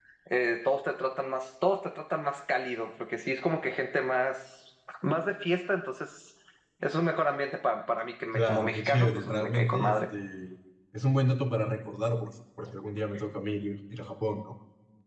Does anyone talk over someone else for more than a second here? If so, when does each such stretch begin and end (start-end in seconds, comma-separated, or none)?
8.3-9.9